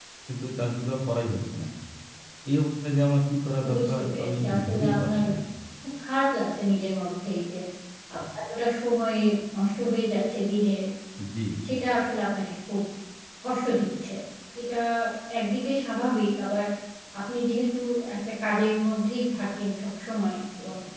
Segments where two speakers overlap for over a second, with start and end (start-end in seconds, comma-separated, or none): 3.7-5.1